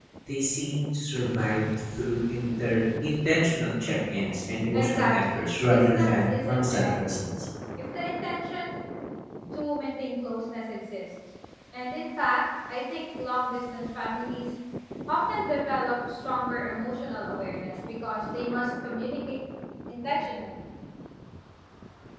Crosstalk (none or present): present